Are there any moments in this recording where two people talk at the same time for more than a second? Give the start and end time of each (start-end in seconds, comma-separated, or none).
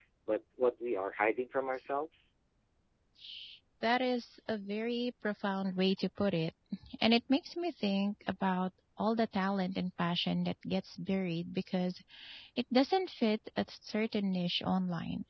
none